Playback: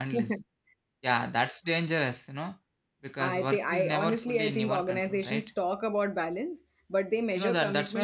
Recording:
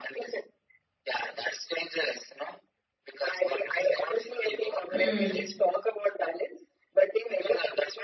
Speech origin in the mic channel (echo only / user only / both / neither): both